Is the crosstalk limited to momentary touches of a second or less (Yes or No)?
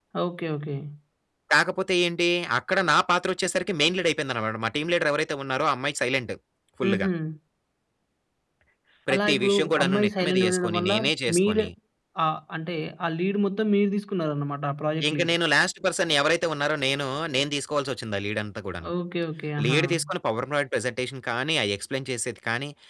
No